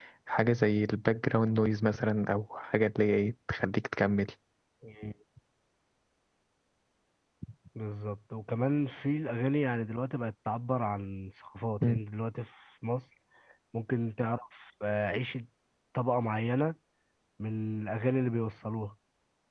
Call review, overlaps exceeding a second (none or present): none